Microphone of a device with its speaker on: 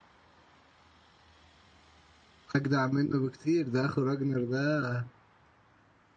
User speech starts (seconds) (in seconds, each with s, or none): 2.6 s